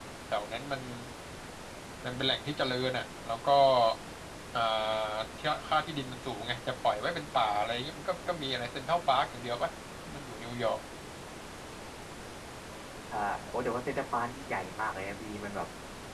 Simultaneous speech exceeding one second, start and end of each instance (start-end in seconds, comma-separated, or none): none